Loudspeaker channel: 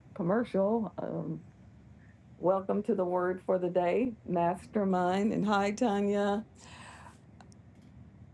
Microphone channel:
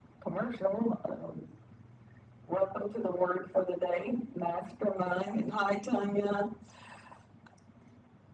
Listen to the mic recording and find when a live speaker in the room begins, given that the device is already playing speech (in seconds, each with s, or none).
none